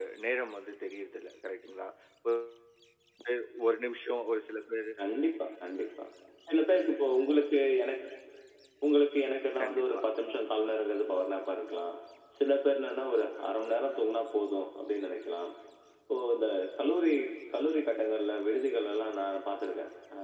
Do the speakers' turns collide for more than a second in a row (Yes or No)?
No